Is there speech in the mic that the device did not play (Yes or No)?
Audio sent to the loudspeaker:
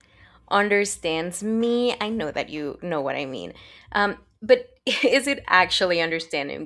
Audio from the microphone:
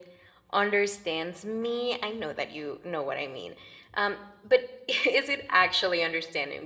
No